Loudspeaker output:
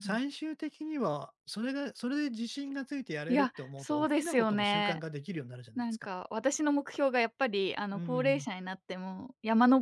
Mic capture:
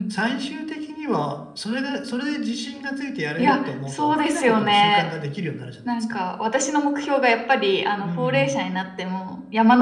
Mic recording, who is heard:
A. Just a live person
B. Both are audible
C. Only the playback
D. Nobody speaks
C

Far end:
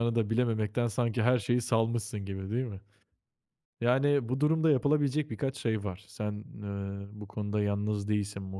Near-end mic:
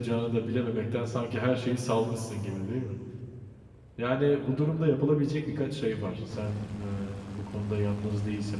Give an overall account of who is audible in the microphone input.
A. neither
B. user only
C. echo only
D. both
C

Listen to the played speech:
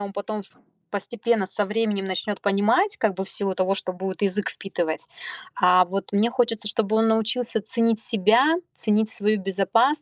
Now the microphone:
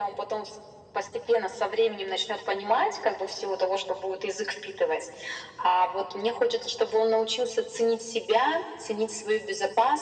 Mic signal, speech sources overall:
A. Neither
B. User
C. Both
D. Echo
D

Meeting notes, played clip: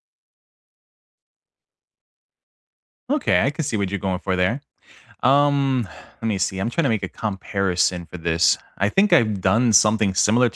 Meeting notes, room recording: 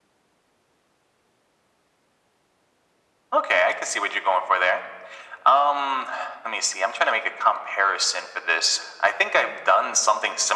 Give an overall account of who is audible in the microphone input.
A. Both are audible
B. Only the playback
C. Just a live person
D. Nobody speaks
B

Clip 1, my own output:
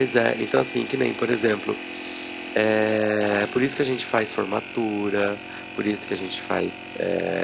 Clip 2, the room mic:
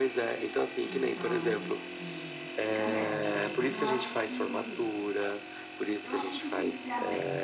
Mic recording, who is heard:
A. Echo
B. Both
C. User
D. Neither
B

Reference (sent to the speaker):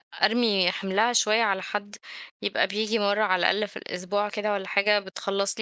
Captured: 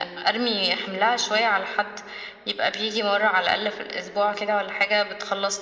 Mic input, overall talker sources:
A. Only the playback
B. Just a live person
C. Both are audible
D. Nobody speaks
A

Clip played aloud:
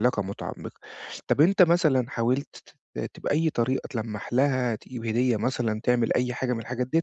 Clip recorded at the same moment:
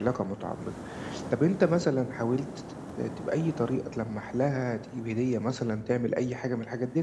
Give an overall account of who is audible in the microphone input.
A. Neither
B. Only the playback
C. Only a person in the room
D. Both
B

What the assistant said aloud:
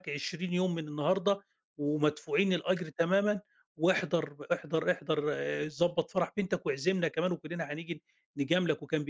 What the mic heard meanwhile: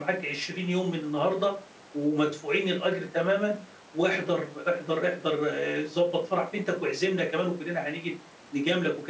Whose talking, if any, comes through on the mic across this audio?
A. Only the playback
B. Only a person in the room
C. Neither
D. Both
A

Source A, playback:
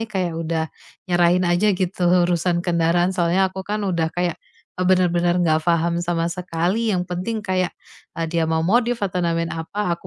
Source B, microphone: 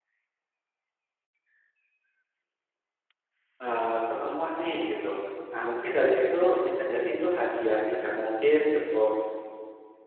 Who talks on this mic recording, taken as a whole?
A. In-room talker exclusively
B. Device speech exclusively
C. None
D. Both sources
A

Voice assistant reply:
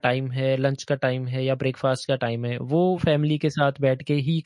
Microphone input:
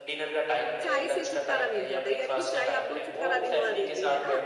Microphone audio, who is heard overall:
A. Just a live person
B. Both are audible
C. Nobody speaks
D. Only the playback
B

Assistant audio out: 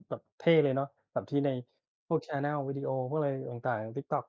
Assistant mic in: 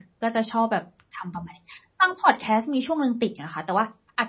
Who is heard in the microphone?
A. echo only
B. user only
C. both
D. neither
B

